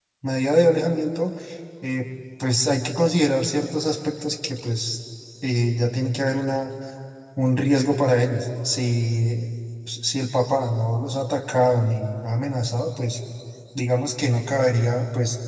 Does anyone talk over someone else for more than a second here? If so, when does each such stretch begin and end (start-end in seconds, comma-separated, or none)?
none